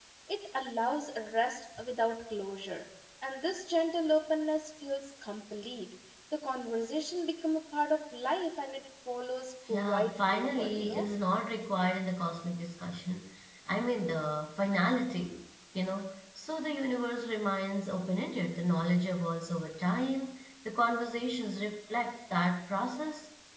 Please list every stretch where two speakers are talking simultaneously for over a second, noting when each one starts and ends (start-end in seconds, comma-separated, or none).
9.7-11.1